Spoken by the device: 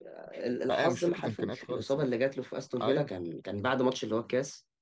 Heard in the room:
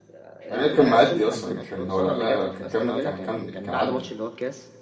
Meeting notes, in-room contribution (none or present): present